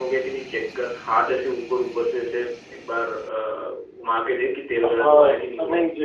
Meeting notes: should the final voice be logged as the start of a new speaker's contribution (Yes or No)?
Yes